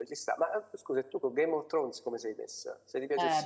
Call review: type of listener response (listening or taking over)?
taking over